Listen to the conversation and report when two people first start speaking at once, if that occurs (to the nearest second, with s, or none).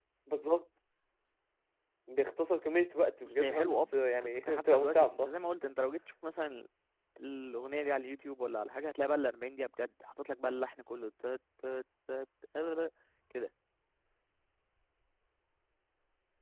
3 s